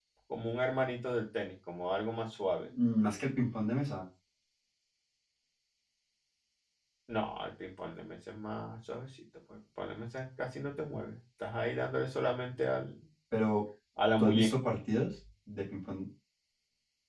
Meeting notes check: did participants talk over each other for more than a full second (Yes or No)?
No